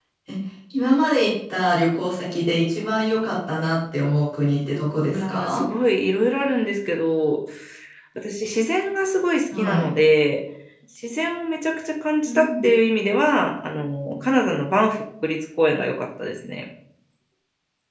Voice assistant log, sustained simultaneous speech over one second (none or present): none